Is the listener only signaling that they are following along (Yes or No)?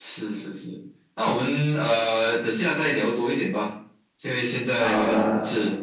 Yes